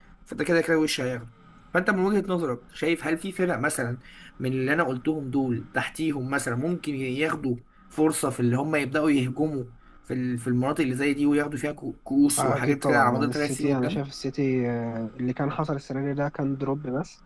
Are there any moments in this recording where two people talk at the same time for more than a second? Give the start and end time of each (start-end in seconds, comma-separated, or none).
12.4-14.0